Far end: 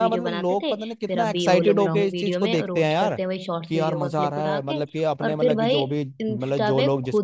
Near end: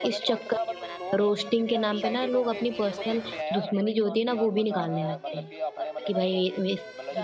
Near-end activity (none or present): present